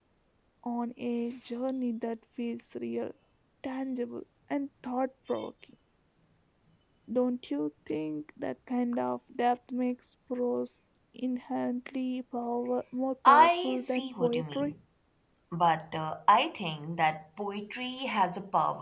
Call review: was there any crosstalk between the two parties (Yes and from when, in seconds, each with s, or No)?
Yes, from 13.2 s